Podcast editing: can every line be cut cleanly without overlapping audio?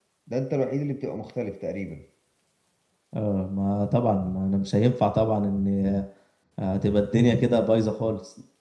Yes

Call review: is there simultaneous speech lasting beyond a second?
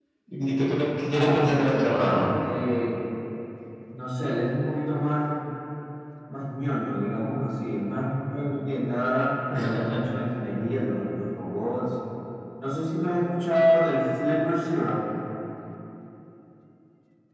Yes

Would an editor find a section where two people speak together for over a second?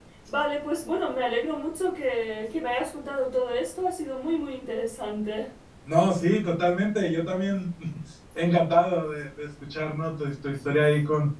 No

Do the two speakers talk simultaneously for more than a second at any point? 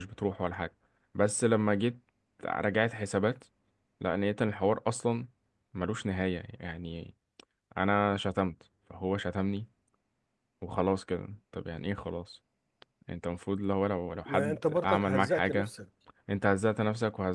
Yes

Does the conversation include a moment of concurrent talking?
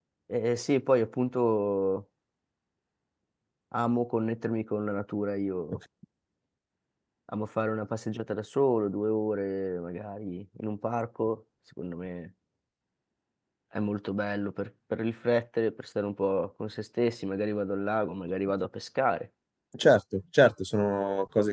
No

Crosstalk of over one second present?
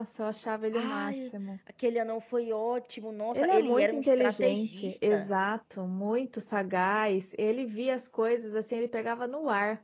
Yes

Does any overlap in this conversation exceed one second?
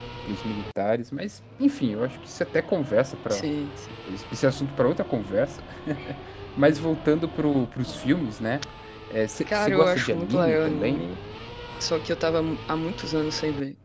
Yes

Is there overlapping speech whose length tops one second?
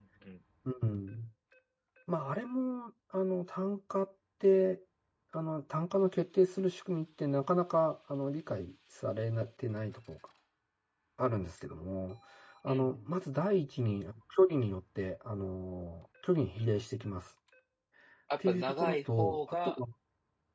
Yes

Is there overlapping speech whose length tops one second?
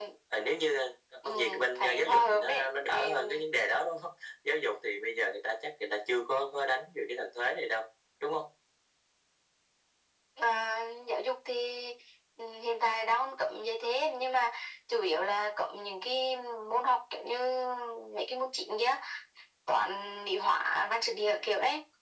Yes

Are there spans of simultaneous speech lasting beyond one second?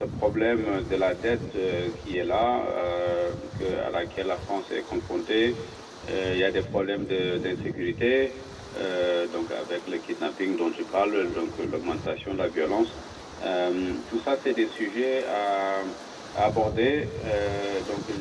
No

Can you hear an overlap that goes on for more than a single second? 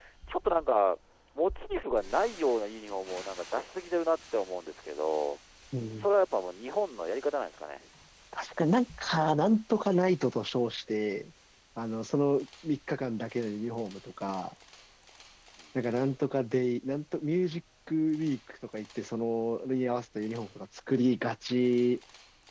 No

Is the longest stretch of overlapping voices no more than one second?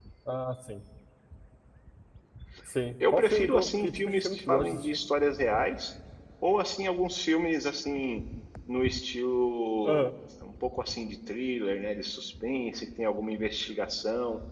No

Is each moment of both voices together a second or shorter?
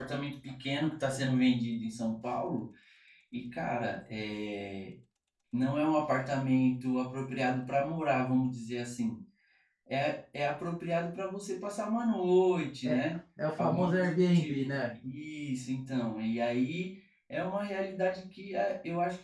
No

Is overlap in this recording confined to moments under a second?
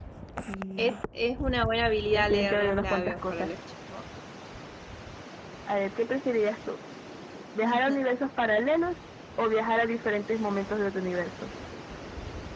No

